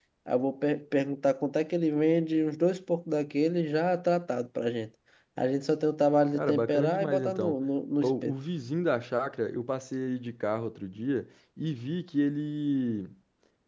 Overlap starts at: 6.3 s

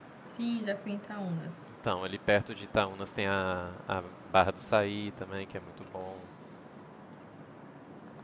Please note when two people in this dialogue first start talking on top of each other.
none

